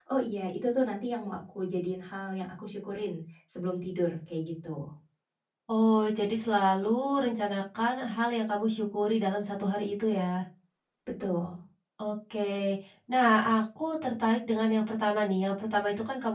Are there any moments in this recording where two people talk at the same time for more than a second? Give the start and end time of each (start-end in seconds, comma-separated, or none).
none